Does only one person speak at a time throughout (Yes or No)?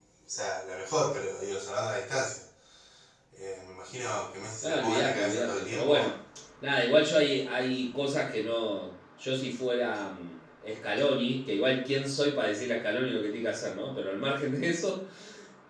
No